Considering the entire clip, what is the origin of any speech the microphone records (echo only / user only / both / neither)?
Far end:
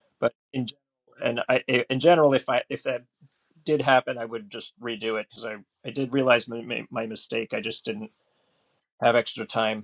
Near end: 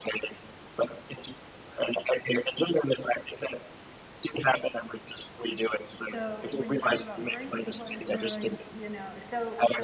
both